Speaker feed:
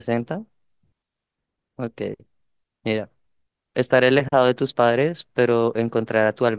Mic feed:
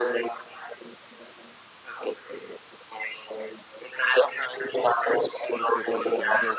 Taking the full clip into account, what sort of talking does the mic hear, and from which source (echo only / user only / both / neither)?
both